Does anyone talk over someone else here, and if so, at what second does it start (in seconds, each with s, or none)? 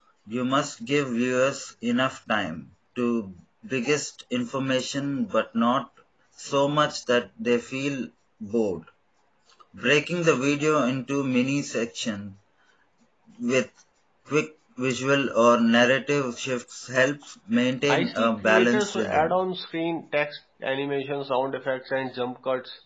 17.8 s